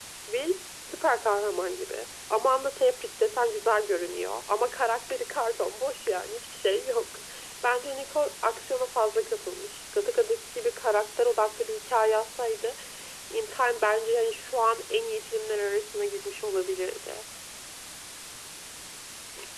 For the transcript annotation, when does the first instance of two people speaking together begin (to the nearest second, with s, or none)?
none